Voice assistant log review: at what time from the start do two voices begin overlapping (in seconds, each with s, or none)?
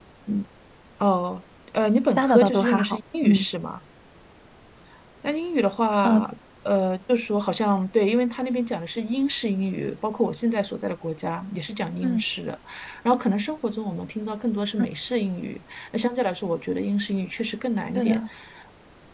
2.1 s